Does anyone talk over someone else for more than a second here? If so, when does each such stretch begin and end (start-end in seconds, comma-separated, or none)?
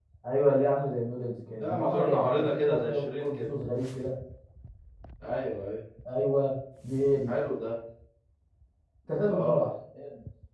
1.6-3.5